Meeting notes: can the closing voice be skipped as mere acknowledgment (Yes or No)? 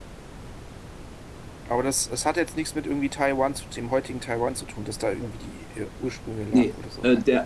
No